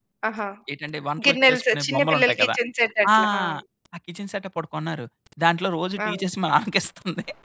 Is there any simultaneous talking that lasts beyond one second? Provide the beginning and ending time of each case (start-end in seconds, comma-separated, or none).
1.2-2.5